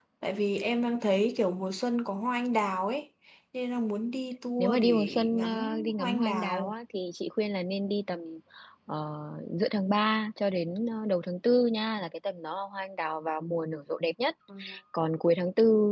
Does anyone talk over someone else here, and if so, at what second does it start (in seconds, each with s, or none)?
4.6 s